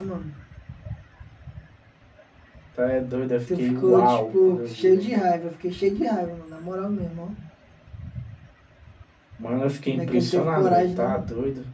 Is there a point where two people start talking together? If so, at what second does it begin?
4 s

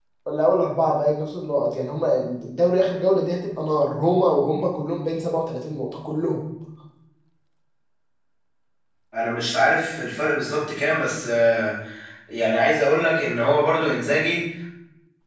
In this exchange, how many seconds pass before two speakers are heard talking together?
none

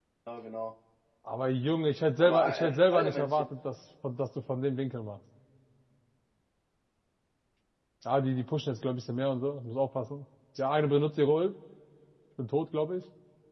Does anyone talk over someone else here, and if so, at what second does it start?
2 s

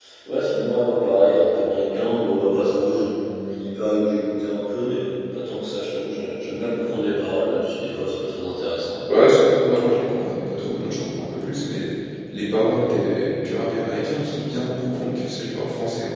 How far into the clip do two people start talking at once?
none

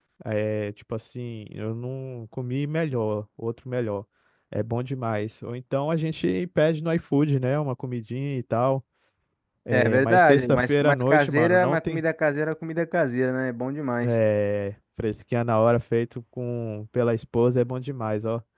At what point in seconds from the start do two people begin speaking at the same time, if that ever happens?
10 s

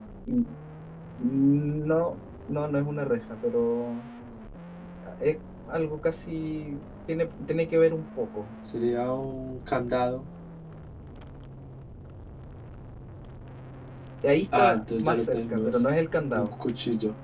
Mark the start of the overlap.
15 s

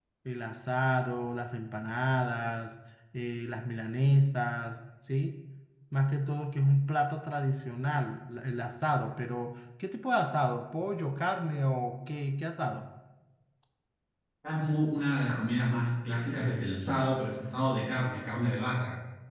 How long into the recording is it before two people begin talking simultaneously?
none

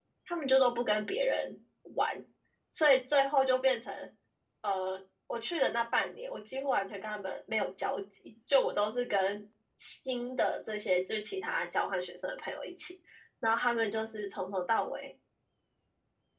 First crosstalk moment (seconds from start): none

